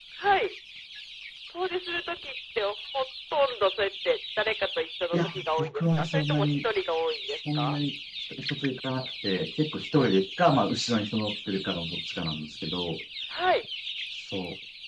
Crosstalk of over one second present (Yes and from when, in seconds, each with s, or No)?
Yes, from 5.1 s